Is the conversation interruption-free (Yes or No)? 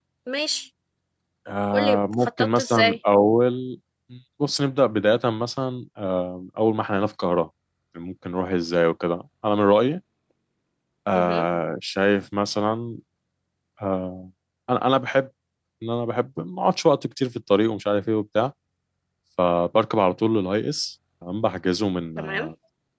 No